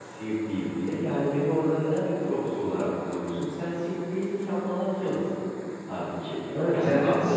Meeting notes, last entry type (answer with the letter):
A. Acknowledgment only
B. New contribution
B